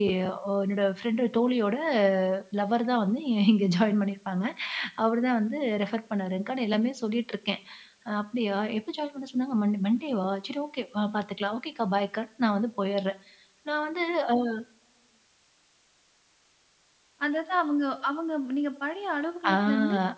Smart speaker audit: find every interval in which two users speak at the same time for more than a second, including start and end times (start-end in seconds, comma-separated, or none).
none